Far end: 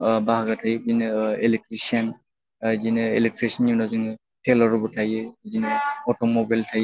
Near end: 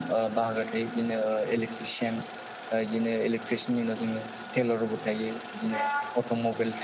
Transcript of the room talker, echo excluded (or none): none